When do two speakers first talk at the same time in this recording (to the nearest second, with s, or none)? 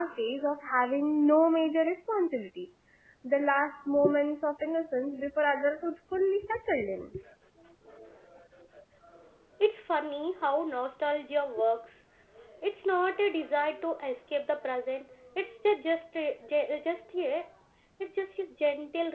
none